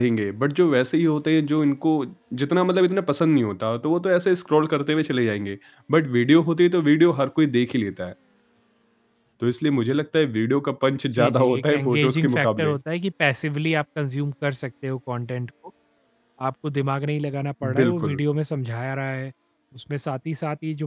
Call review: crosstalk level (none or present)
present